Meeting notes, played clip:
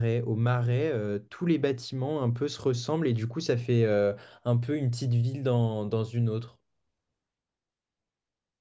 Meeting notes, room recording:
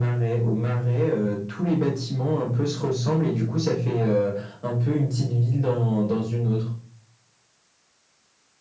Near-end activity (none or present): none